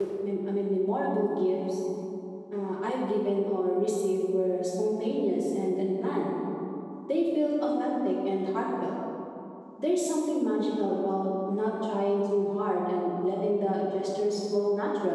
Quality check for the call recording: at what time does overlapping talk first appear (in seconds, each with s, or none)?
none